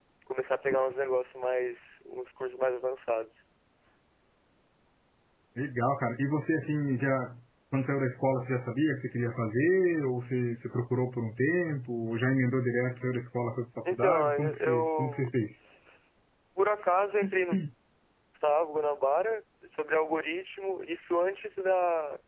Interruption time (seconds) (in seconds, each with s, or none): 13.8 s